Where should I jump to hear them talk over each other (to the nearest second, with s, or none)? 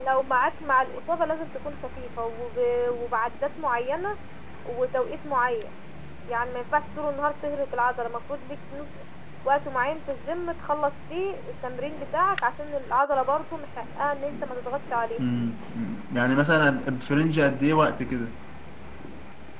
none